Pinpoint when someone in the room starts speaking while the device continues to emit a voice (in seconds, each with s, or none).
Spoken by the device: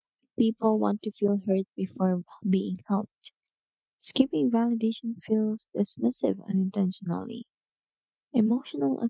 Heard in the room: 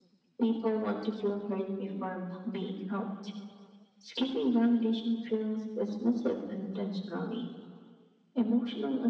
none